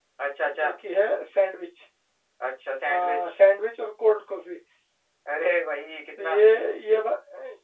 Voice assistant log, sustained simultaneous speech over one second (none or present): none